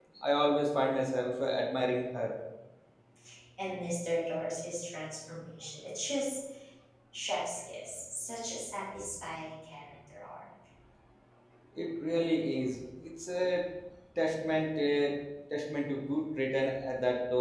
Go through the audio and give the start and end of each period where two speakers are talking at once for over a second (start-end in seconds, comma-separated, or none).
none